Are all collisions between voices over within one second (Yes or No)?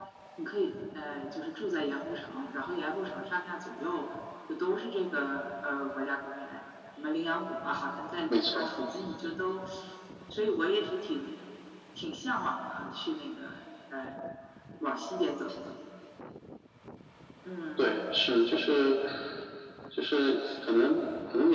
Yes